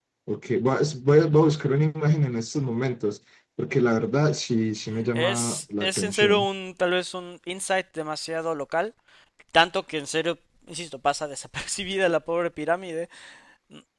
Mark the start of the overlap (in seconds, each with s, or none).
5.1 s